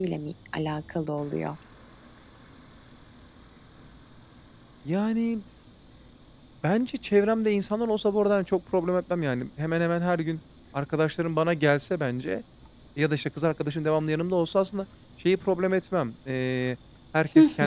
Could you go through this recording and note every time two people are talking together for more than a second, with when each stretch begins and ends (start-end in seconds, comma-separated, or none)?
none